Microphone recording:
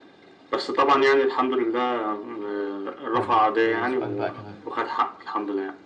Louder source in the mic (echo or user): echo